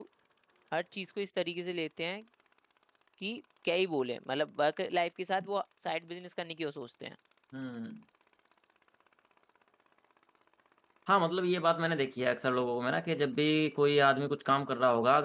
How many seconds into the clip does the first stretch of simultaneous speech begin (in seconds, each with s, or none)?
none